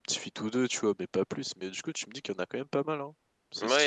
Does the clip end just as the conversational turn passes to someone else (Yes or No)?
Yes